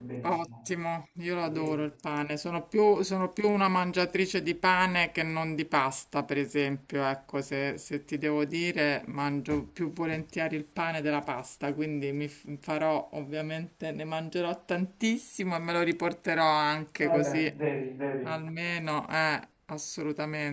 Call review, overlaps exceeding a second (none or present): none